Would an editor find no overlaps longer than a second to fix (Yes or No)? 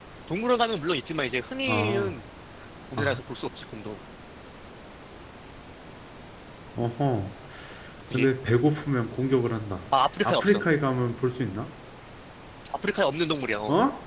Yes